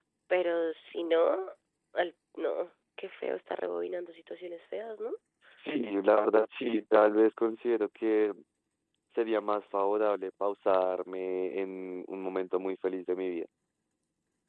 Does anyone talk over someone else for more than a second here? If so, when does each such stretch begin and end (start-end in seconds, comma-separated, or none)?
none